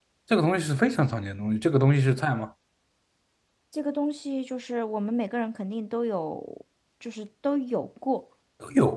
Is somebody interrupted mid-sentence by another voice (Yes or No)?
No